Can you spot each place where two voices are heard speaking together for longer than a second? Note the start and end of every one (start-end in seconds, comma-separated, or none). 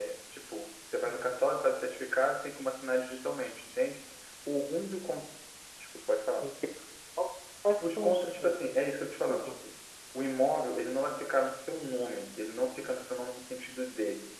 7.8-9.5